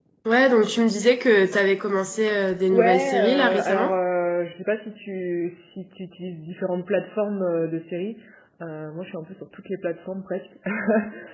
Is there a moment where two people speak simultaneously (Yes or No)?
Yes